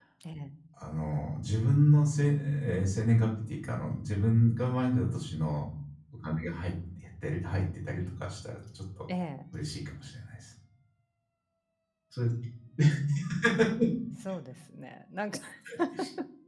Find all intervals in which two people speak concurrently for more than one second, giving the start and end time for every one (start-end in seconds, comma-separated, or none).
none